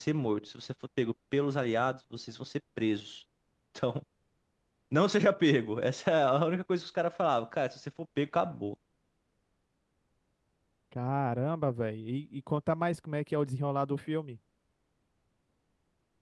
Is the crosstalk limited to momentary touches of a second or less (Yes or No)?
Yes